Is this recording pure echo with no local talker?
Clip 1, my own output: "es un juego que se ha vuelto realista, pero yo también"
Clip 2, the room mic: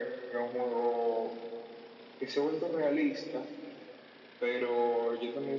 Yes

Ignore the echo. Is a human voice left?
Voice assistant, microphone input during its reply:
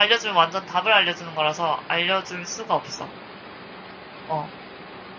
Yes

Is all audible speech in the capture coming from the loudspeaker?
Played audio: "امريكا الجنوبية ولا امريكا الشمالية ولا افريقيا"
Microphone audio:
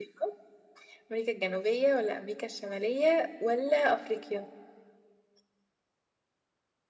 Yes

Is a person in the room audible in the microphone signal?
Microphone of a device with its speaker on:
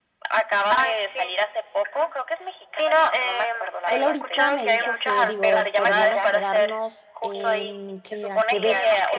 Yes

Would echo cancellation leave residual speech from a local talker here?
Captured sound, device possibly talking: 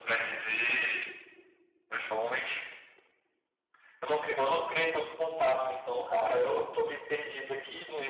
No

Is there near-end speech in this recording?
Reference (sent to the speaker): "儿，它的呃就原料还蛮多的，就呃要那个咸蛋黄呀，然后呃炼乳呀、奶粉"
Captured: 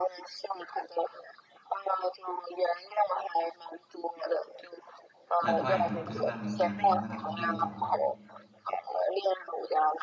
Yes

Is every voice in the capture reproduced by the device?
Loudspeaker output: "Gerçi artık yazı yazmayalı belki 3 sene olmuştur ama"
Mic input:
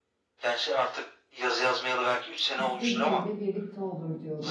No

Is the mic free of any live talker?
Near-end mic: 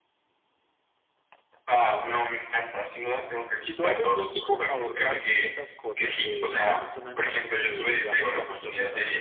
No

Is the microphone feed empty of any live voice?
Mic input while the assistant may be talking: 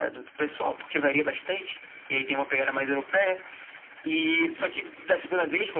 Yes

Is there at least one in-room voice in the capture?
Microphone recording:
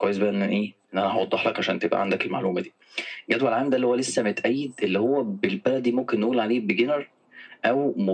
No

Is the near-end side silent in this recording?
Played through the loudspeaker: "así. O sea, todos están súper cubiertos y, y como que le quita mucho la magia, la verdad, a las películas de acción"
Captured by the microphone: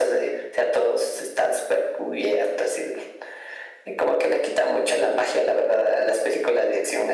Yes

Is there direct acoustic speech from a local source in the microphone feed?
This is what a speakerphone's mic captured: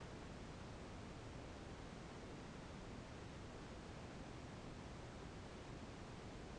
No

